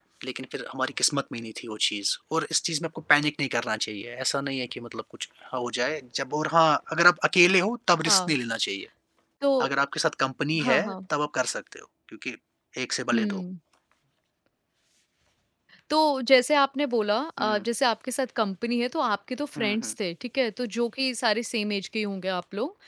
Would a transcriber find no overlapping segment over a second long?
Yes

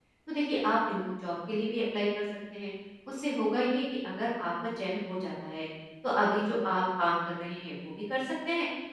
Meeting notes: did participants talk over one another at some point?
No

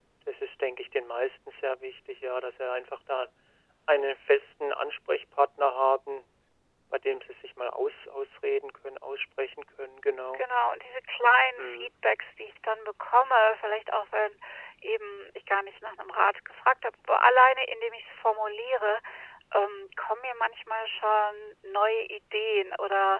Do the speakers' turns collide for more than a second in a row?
No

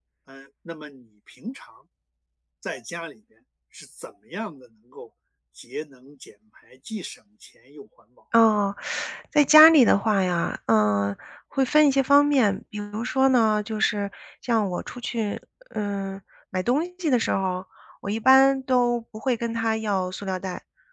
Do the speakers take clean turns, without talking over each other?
Yes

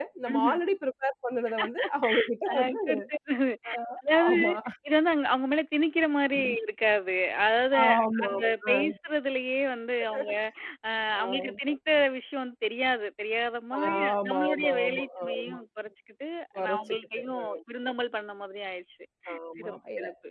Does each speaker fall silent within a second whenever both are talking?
No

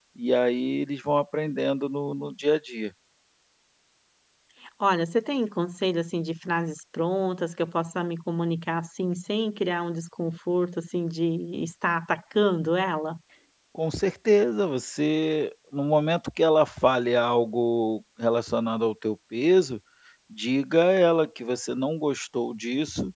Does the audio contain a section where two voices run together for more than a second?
No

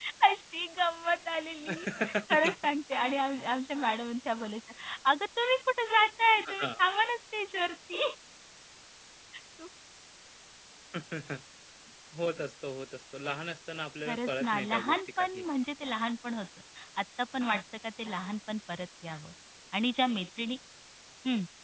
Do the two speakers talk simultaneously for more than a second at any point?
Yes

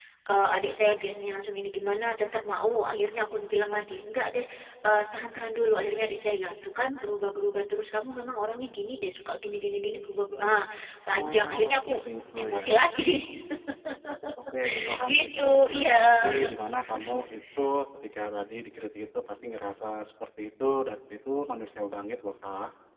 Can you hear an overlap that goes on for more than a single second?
Yes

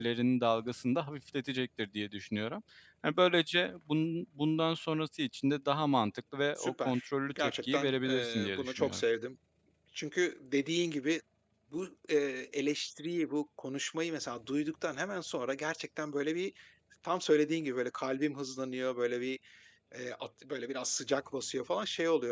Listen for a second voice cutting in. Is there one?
Yes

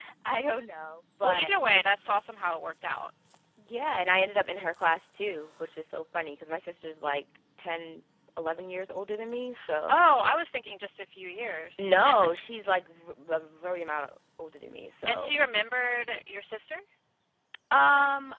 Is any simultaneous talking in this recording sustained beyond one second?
No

